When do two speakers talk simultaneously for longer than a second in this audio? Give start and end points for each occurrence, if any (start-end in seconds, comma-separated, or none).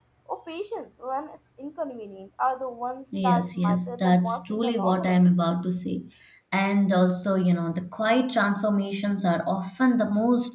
3.2-5.2